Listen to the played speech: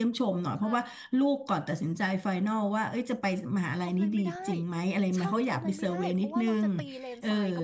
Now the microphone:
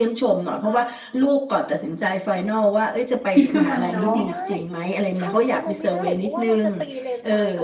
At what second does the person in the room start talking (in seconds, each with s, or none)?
3.3 s